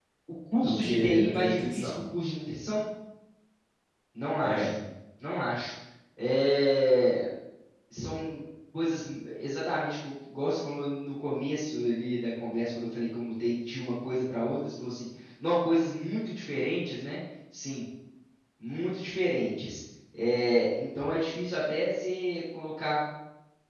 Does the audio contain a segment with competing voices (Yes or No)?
Yes